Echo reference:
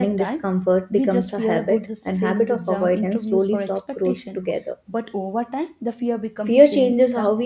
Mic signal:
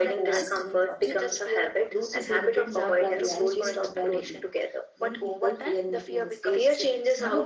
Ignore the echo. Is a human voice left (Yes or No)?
Yes